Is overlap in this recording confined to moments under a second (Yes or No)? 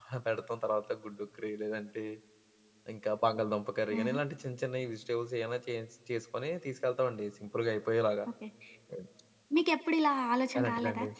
Yes